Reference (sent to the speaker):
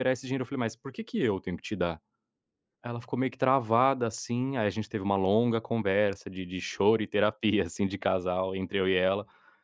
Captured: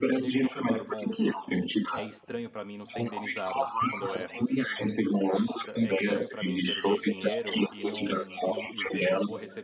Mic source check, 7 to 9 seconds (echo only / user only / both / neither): both